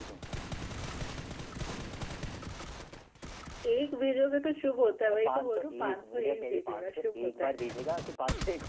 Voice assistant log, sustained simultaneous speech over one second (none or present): present